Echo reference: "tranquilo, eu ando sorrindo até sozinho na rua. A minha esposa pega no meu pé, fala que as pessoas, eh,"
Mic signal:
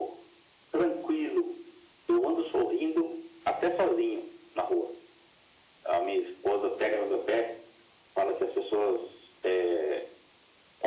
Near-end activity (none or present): none